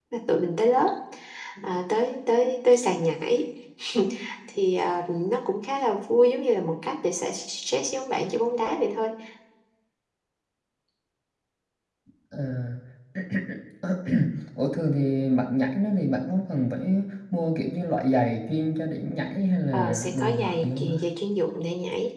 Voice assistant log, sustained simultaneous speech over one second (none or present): present